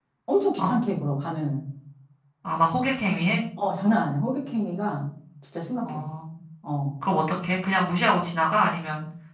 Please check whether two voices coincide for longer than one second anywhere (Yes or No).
No